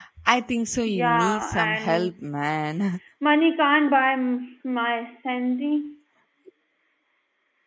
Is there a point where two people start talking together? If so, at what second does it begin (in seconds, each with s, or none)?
0.9 s